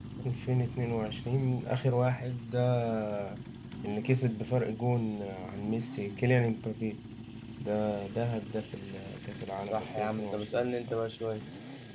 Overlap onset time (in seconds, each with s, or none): 9.6 s